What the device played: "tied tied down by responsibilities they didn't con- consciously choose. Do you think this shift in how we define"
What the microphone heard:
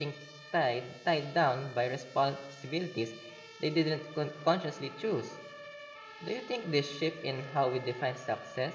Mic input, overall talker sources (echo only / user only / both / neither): echo only